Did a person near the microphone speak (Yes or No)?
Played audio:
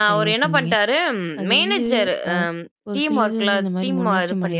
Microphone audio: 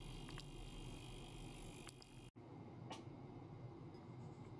No